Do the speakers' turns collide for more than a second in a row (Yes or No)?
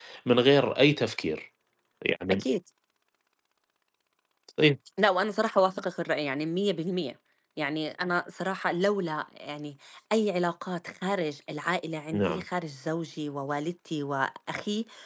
No